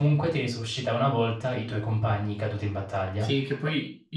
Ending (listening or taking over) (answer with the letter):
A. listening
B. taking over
B